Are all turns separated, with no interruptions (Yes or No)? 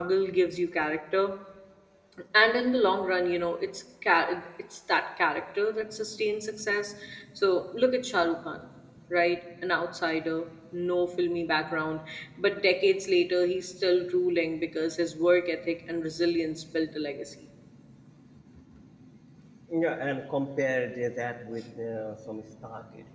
Yes